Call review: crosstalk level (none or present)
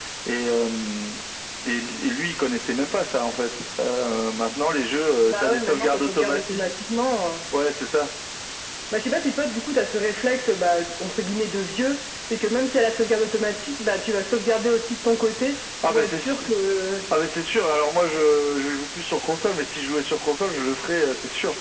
present